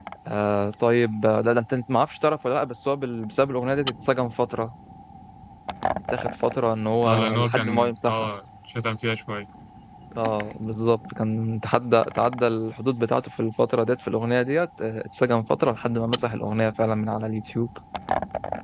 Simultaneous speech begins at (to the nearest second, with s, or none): 7 s